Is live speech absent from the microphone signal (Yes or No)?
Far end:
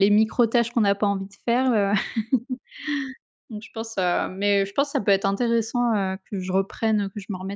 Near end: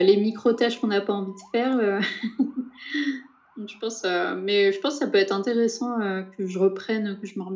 Yes